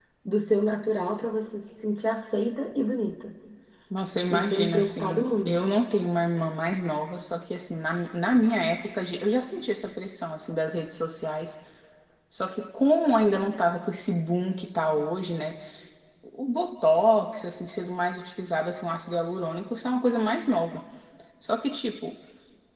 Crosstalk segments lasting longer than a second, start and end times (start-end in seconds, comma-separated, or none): 4.3-5.6